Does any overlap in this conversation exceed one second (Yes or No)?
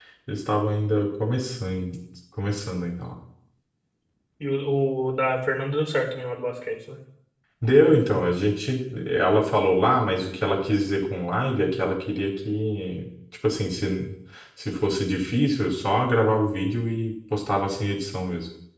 No